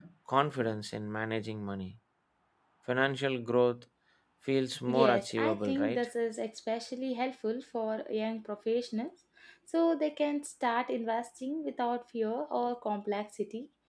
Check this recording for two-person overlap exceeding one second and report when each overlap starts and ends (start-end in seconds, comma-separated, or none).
4.8-6.0